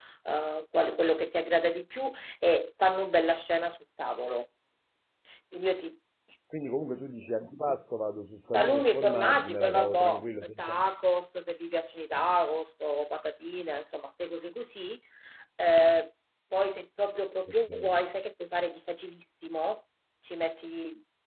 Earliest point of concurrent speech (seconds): 8.5 s

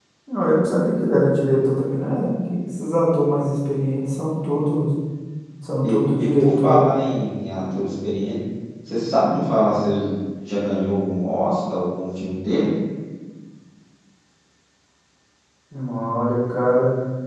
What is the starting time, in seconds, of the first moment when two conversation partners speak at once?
5.8 s

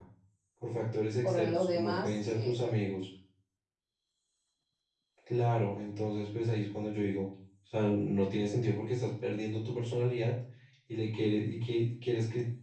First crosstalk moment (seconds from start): 1.2 s

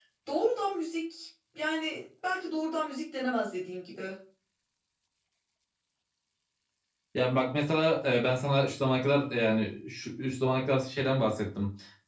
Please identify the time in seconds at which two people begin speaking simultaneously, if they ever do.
none

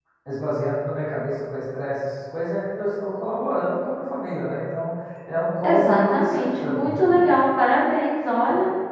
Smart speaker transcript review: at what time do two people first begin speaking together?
5.6 s

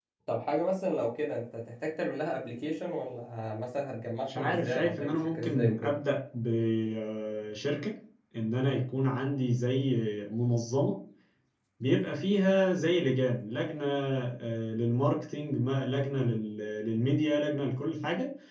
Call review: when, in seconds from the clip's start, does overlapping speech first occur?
4.3 s

